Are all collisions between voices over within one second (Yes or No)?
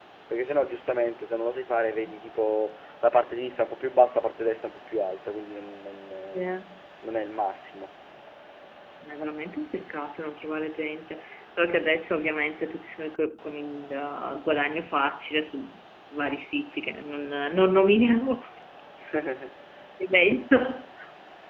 Yes